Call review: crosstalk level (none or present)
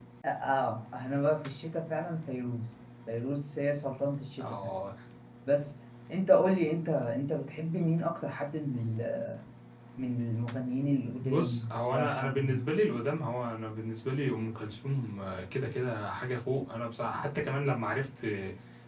present